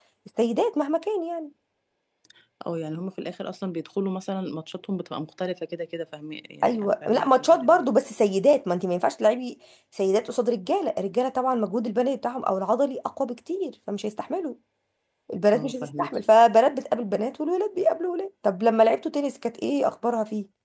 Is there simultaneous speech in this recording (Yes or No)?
Yes